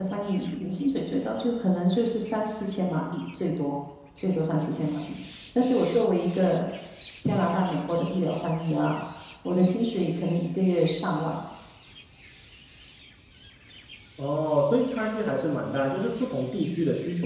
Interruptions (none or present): none